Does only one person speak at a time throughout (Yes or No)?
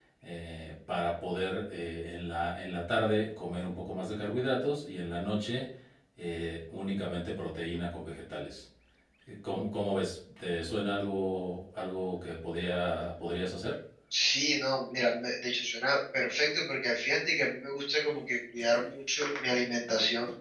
Yes